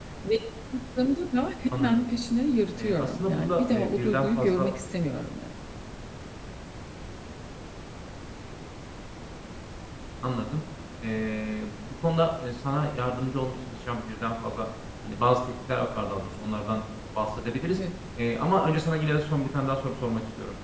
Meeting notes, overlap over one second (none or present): present